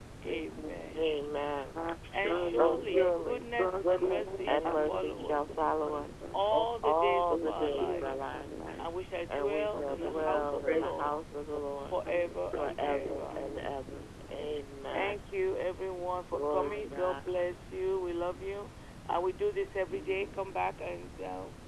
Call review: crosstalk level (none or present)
present